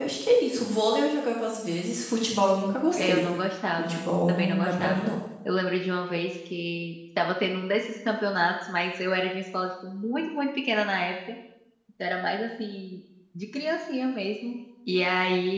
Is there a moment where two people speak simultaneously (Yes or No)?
Yes